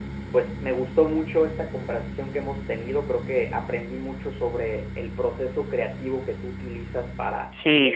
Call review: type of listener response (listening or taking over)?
taking over